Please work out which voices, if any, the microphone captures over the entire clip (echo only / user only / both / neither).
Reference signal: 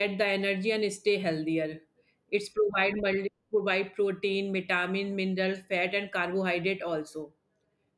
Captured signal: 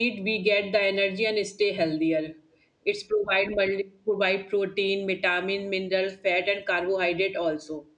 echo only